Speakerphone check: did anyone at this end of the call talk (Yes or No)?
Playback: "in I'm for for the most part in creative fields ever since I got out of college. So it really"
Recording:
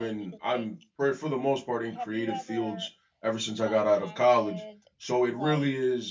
Yes